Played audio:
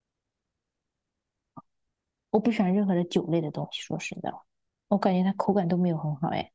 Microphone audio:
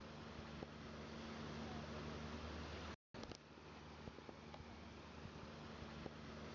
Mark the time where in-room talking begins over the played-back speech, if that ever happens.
none

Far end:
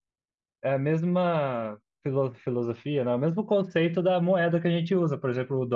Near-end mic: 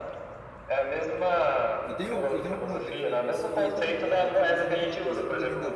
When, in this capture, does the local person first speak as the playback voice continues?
2 s

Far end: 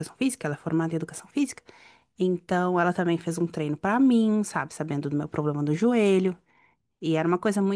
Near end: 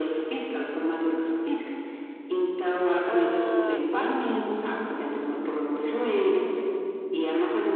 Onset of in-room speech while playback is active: 3 s

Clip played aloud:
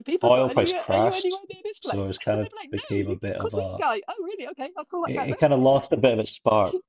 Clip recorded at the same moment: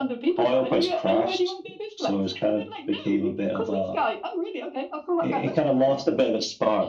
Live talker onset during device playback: none

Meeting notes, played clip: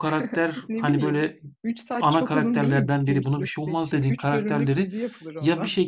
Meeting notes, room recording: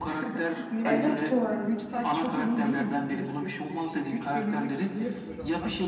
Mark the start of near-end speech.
1 s

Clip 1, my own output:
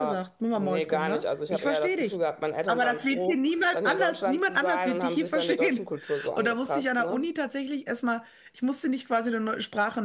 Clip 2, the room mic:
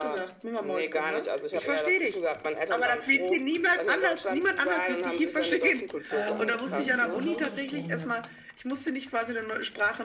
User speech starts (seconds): 6 s

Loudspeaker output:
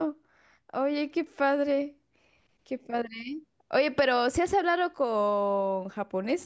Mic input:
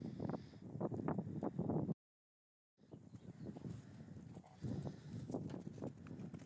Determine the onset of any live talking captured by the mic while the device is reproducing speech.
none

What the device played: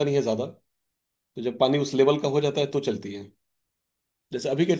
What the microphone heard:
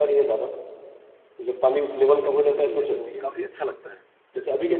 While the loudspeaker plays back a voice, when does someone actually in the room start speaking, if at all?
2 s

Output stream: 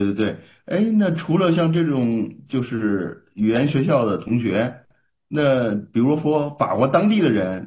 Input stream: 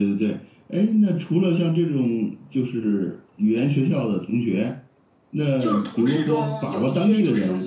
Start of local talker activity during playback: 6 s

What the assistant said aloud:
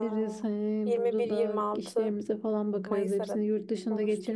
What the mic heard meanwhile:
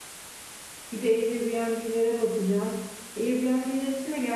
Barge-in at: 1 s

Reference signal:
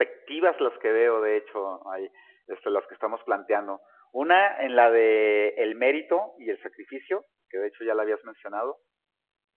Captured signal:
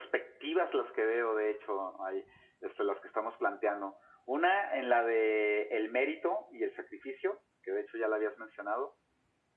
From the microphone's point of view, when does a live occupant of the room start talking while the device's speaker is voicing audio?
none

